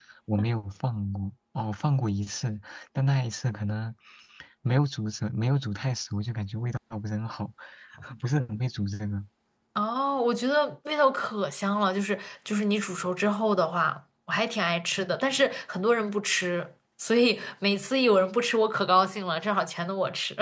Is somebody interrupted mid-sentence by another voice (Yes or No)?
No